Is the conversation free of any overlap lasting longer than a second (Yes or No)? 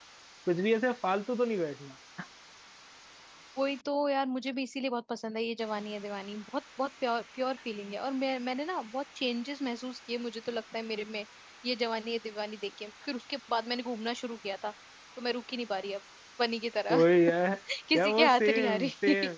No